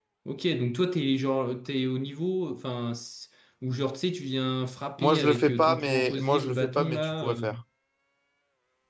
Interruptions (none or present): present